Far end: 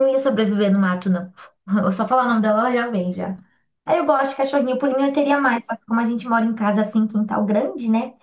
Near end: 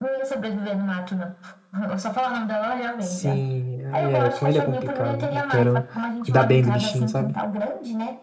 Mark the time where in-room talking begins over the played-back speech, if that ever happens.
3.0 s

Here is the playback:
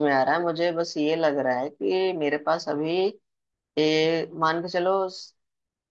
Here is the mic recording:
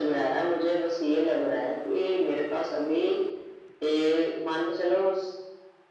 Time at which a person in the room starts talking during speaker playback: none

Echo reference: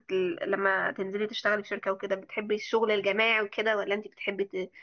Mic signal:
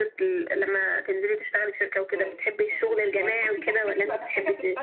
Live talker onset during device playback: 2.0 s

